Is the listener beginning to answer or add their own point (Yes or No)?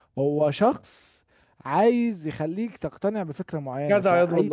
Yes